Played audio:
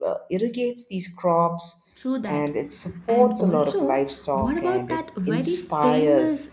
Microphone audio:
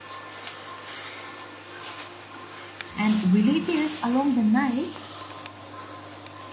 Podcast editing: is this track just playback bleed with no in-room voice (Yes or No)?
No